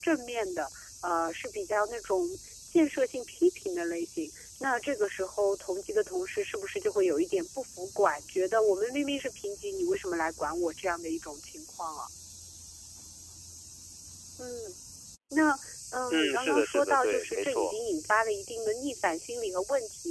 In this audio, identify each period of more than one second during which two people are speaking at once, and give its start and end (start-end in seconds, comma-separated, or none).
16.1-17.7